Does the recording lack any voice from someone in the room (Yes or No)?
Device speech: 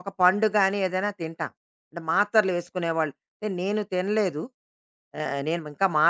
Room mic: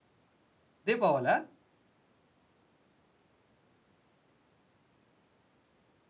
No